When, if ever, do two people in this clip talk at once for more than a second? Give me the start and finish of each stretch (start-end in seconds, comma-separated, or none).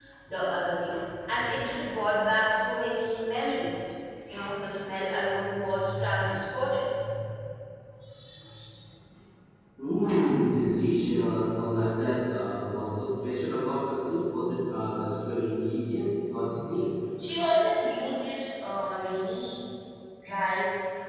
none